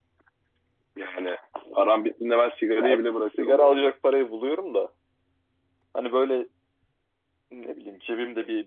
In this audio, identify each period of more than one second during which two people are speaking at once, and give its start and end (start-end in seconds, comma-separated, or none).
2.7-3.9